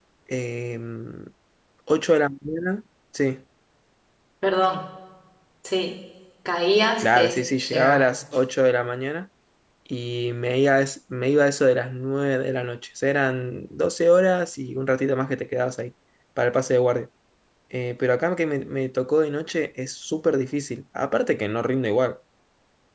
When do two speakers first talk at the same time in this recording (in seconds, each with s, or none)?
7.0 s